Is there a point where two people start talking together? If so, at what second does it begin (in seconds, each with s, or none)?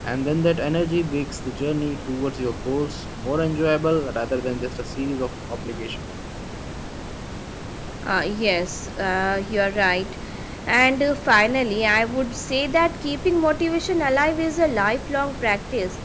none